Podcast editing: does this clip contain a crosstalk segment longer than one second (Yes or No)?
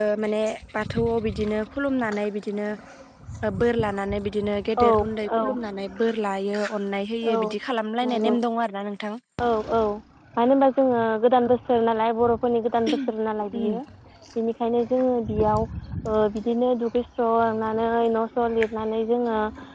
No